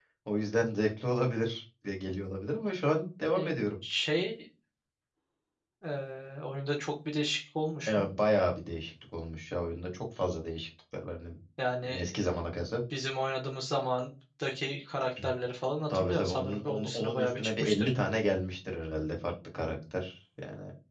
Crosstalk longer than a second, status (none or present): present